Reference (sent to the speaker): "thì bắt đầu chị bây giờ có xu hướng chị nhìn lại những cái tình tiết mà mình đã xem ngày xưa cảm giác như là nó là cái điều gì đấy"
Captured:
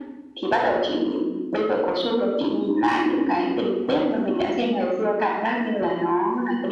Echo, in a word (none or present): present